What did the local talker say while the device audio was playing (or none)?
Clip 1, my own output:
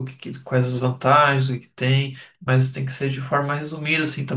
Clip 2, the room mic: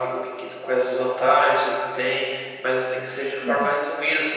Uhum.